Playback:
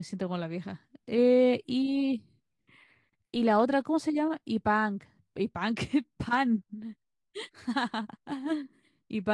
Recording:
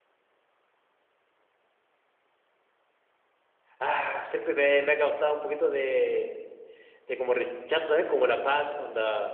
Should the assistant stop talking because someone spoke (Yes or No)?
Yes